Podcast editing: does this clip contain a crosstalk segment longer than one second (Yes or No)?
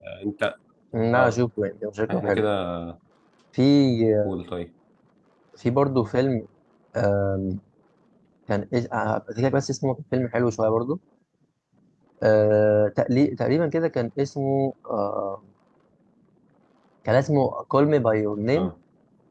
No